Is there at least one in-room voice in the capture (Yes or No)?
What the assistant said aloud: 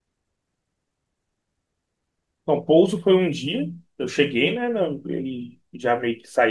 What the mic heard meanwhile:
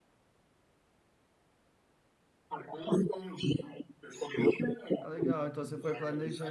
Yes